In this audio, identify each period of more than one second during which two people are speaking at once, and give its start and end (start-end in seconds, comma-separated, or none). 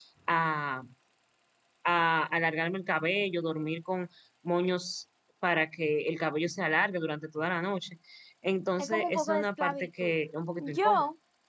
8.8-10.1